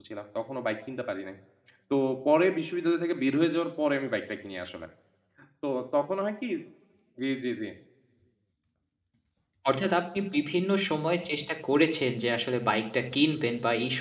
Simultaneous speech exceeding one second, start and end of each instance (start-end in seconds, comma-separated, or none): none